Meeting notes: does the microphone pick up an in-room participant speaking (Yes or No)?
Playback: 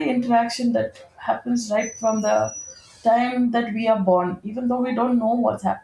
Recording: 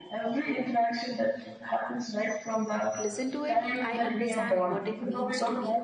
Yes